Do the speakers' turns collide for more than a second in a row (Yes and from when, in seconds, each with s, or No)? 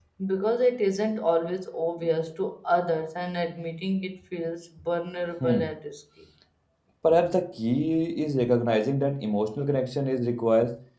No